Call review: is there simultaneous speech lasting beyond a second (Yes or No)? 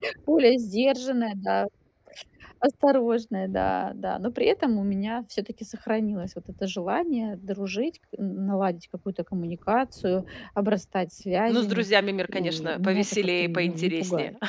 Yes